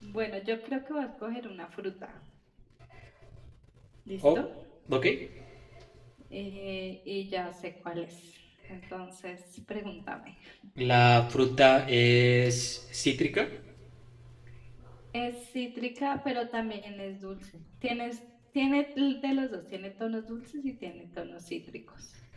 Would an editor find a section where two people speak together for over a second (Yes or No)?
No